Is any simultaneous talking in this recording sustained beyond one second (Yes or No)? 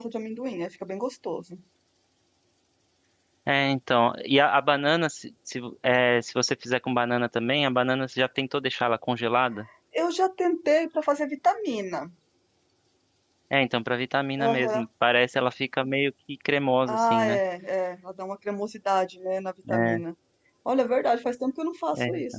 No